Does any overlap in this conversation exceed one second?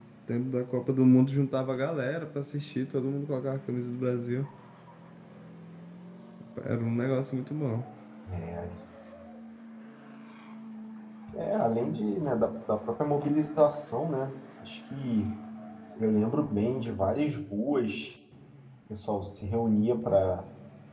No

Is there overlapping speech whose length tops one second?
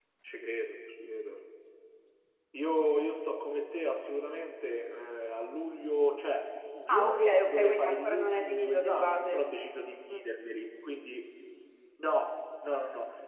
Yes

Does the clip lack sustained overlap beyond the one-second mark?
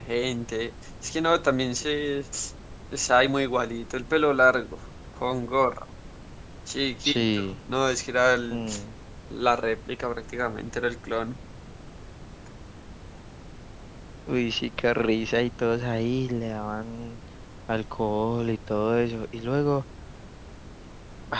Yes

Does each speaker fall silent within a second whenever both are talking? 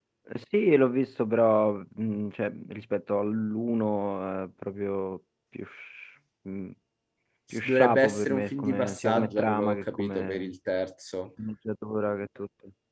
No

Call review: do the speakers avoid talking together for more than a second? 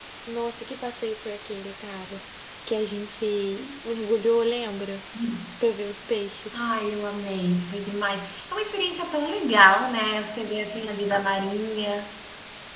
Yes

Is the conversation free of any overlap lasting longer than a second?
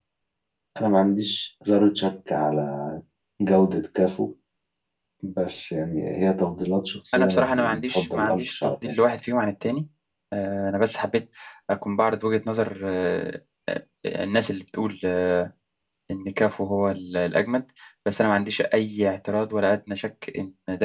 No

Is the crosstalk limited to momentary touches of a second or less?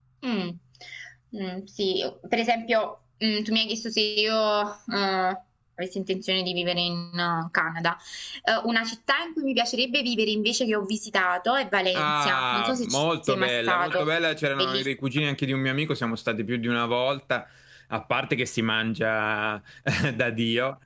No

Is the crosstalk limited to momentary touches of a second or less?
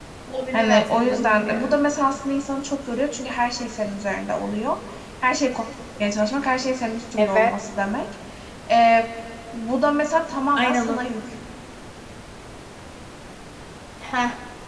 No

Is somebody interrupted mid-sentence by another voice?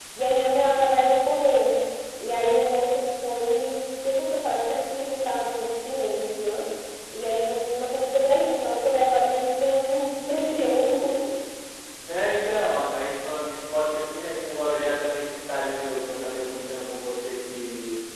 No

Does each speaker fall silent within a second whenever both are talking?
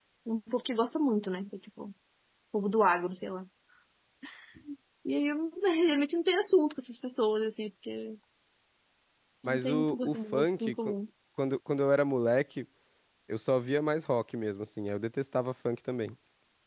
No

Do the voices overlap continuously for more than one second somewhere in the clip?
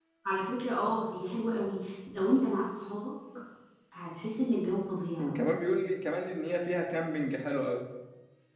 No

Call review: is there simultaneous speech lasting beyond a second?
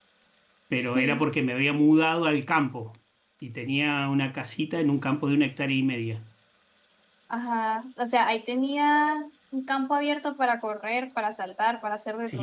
No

